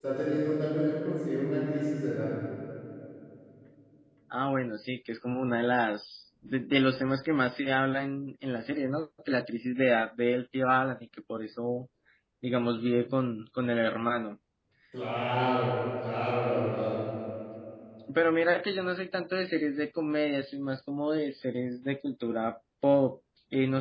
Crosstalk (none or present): none